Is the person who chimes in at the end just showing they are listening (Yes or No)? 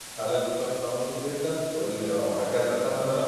No